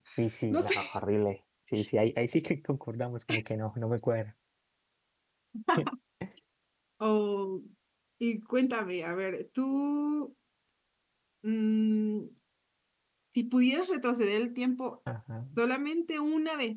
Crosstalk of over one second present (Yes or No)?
No